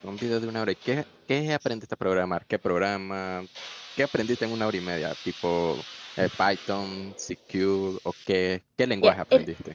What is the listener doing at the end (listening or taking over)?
taking over